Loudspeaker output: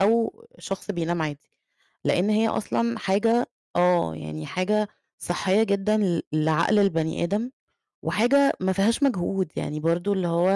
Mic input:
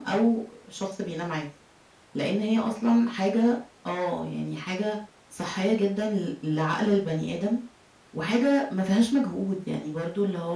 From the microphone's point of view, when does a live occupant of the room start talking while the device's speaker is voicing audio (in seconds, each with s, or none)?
none